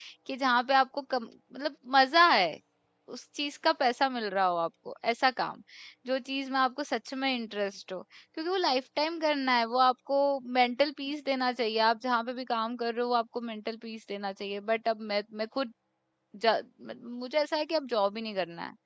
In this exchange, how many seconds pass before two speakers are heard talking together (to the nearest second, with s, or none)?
none